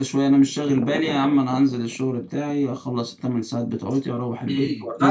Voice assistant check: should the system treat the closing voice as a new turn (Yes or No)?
Yes